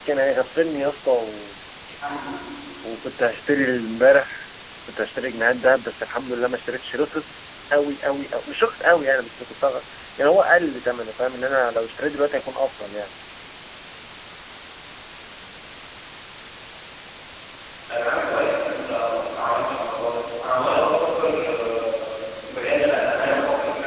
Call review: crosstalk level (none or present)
none